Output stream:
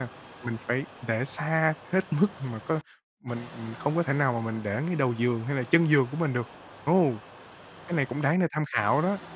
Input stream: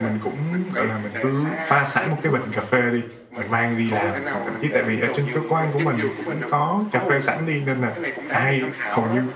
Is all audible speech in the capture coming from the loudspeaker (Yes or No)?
No